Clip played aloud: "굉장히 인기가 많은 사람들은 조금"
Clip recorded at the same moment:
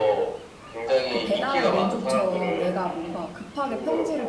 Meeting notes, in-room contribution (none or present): present